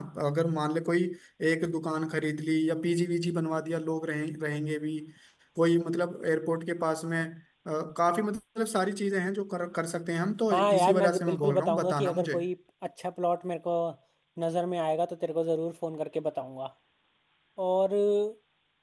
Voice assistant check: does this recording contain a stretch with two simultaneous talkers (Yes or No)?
Yes